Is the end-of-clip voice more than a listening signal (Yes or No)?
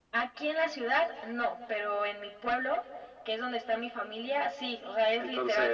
Yes